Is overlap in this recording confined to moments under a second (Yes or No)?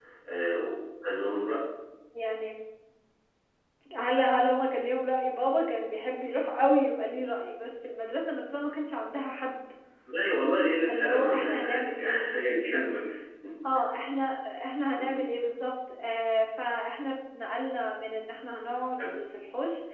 No